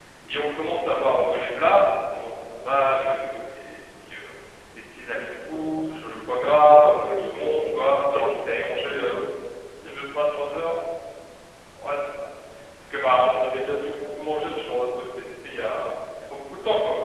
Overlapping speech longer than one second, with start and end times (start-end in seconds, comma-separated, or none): 6.4-9.1